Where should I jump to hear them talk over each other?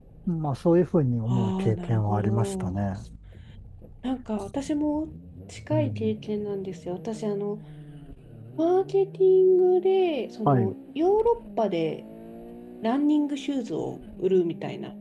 1.3 s

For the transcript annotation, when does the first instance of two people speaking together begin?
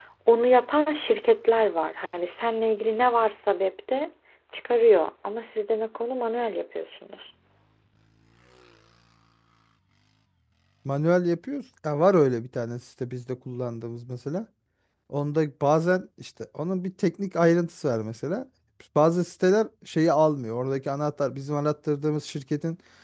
none

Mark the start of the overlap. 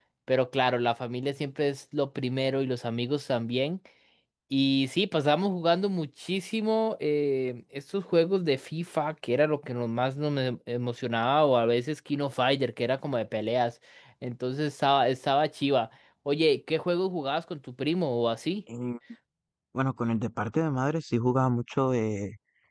none

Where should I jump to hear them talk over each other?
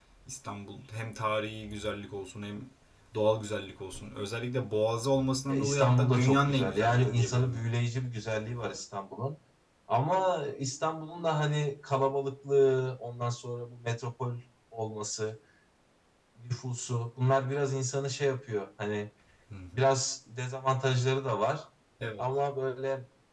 5.5 s

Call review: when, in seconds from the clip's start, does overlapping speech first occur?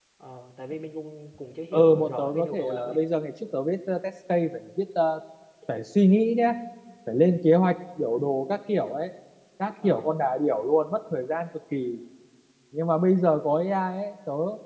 1.7 s

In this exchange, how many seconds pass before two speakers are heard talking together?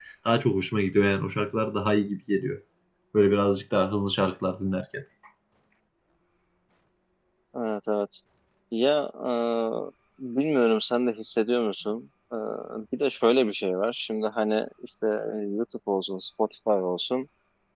none

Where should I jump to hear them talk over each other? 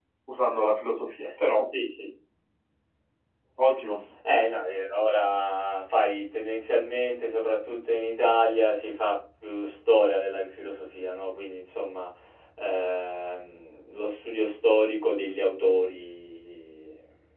none

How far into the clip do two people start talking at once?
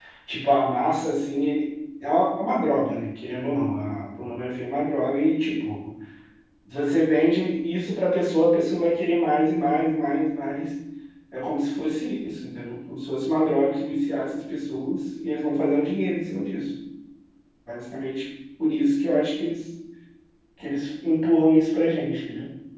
none

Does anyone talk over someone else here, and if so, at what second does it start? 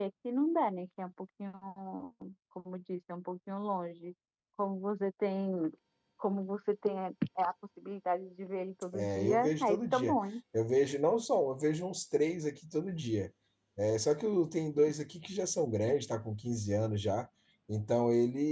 8.9 s

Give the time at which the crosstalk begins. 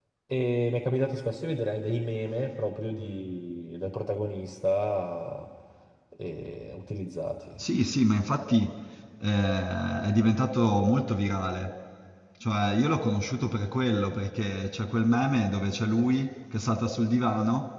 none

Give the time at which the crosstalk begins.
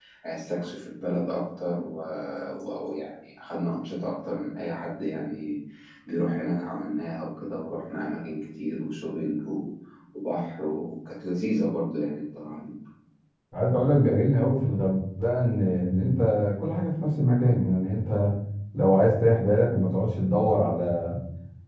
none

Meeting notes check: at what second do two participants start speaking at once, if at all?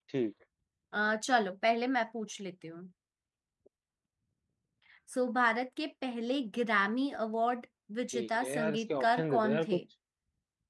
8.1 s

